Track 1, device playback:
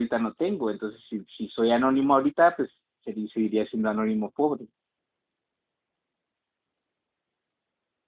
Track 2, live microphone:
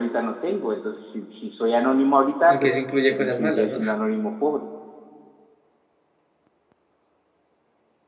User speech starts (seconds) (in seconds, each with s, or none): 2.4 s